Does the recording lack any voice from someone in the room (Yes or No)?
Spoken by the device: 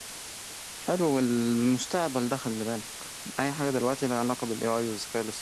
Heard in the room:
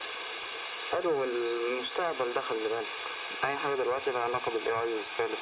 Yes